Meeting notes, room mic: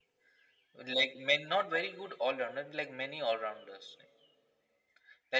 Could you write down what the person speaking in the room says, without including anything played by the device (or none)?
none